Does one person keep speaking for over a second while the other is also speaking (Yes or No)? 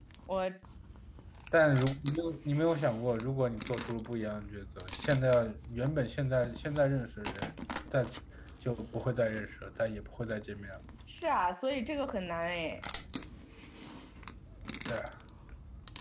No